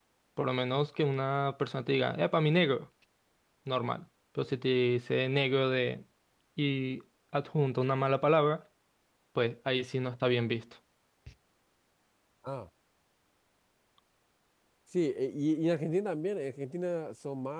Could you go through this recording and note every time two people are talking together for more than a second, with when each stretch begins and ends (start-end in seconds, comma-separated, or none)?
none